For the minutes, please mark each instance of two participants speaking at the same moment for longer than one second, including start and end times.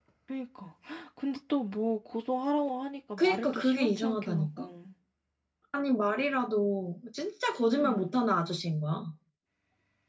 3.2-4.7

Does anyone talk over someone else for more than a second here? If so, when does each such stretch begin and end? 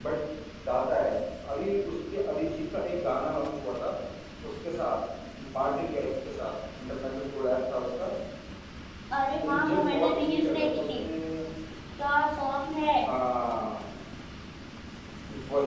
9.4-11.0

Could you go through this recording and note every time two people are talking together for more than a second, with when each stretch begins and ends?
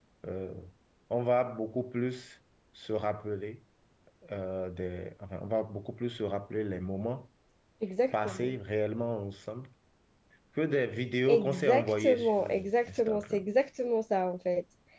11.3-13.4

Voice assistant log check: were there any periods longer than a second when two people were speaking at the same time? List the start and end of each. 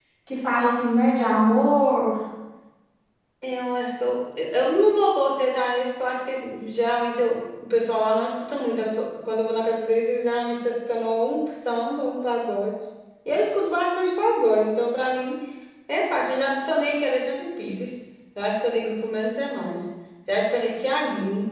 none

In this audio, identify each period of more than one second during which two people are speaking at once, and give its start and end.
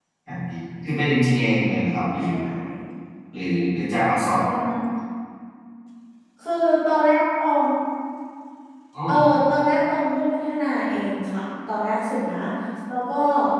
none

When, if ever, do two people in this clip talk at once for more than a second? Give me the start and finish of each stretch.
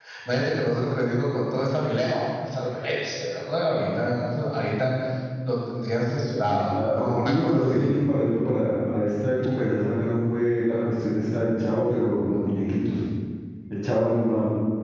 6.5-7.9

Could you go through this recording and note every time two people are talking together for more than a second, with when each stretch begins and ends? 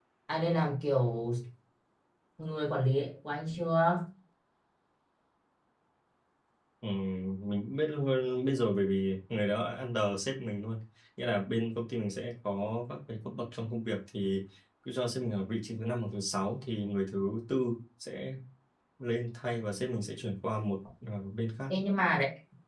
none

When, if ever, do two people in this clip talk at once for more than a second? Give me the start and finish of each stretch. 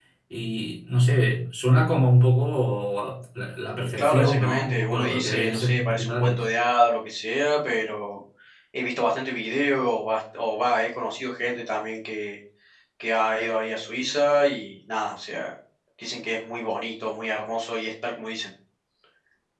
4.0-6.5

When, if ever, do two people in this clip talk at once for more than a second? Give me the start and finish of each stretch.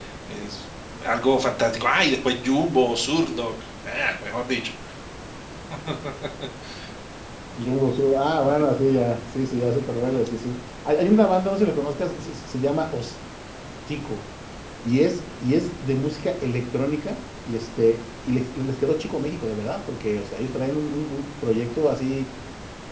none

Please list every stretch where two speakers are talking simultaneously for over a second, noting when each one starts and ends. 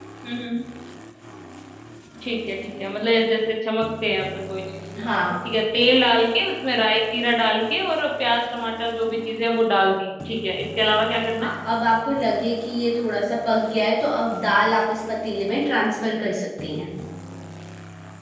none

